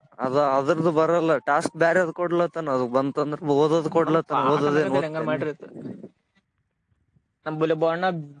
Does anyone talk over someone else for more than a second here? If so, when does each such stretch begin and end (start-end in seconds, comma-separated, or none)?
4.1-5.4